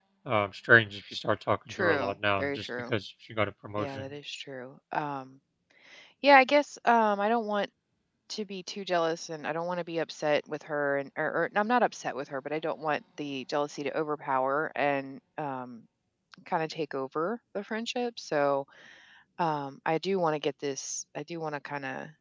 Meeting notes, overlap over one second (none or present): present